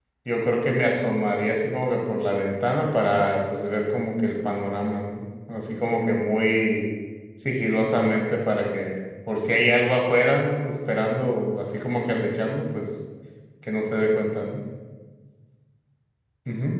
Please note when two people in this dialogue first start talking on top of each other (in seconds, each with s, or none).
none